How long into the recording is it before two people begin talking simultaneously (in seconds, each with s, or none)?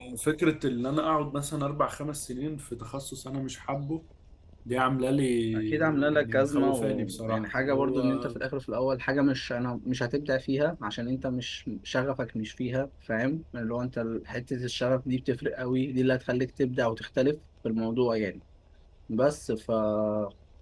5.5 s